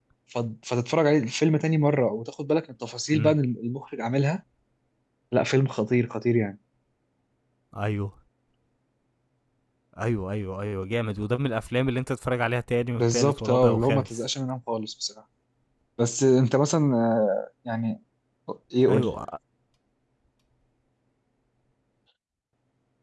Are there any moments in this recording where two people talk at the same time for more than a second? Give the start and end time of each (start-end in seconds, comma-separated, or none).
13.0-14.3